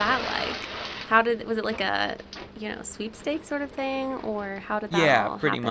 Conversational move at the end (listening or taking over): taking over